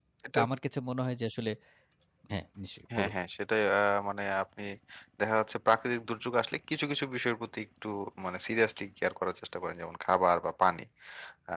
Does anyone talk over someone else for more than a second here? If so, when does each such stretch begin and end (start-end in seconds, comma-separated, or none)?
none